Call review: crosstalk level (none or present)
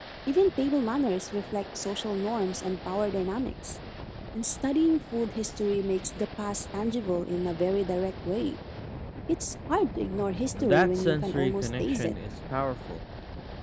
present